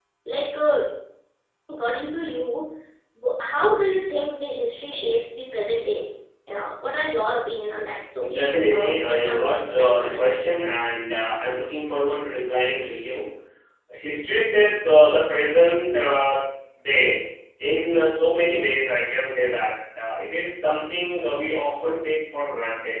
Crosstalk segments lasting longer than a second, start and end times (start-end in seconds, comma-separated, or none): 8.2-10.2